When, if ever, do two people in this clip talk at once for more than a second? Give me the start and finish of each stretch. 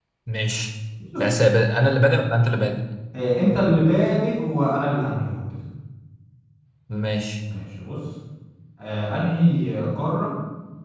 none

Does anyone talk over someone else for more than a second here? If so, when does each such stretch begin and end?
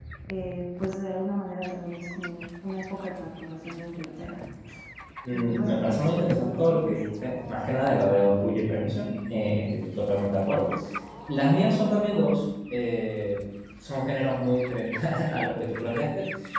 5.3-6.9

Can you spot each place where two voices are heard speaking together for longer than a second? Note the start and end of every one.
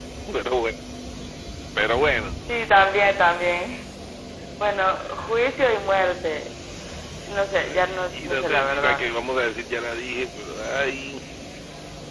7.6-9.0

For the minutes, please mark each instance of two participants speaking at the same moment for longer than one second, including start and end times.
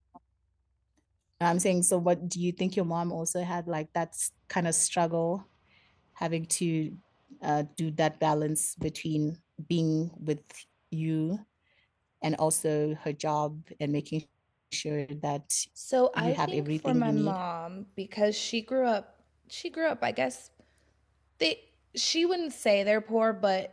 16.1-17.4

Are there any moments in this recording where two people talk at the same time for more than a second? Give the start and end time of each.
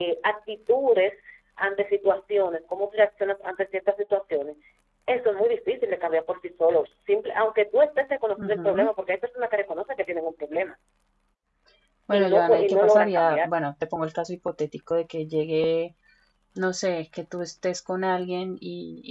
12.1-13.6

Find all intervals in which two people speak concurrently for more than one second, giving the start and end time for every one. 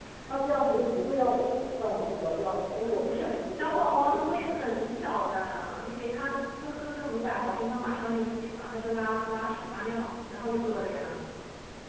2.8-4.2

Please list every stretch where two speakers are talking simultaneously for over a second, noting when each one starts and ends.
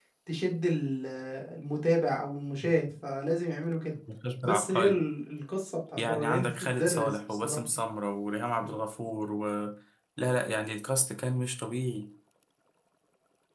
6.0-7.6

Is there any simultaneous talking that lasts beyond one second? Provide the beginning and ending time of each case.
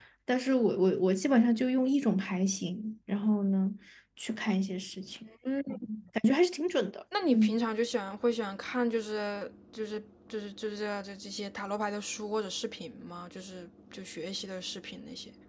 none

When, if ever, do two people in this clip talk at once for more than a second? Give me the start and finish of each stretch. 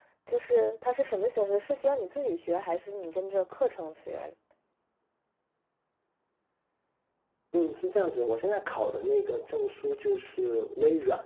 none

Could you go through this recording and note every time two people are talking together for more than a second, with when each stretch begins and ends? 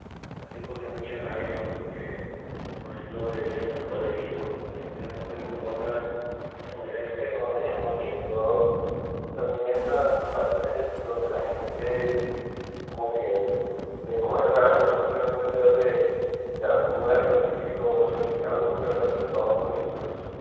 7.3-8.6

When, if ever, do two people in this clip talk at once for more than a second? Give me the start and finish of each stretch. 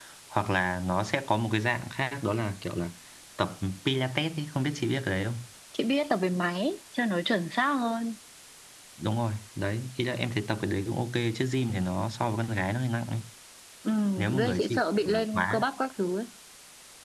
14.4-15.7

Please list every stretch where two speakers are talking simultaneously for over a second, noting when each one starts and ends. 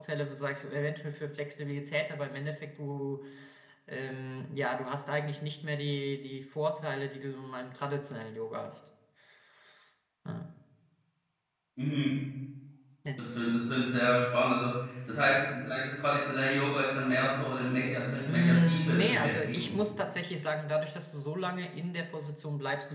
18.2-19.9

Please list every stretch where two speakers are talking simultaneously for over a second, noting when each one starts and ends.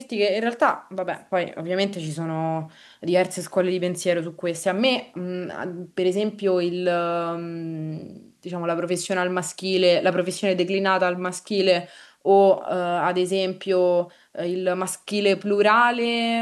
none

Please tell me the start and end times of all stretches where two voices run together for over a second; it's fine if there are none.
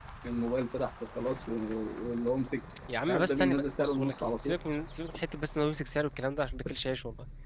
3.1-4.6

